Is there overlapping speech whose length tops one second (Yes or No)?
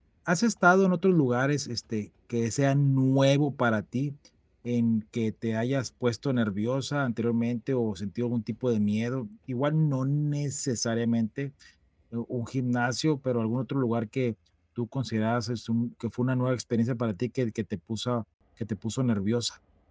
No